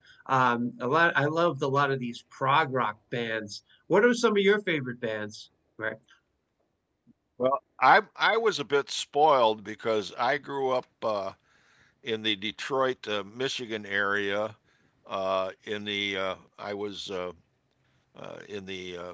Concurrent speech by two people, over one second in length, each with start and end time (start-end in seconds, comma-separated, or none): none